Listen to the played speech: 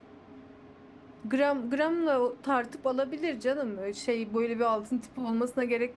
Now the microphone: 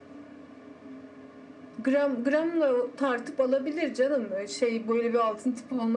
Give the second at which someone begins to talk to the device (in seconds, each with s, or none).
none